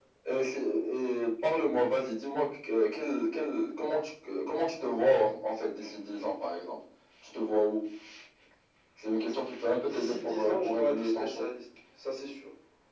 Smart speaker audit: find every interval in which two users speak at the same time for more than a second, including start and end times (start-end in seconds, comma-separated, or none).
9.7-11.4